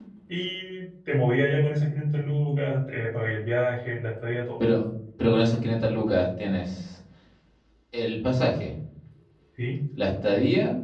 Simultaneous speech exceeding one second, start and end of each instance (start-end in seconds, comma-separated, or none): none